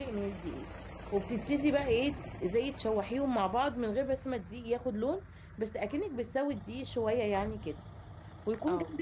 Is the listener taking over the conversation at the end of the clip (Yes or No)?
No